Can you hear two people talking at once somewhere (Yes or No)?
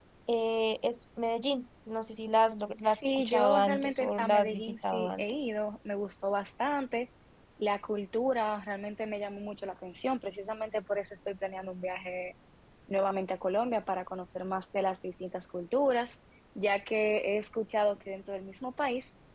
Yes